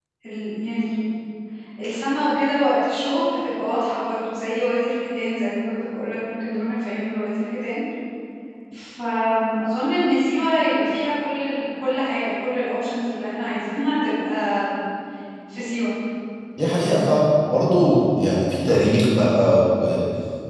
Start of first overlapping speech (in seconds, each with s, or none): none